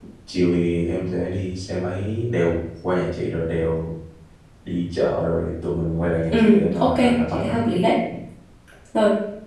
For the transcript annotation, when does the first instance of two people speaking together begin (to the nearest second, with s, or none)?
6 s